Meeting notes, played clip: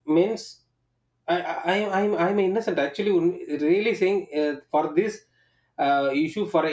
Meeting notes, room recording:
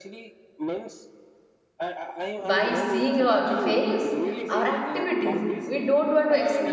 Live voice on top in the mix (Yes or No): Yes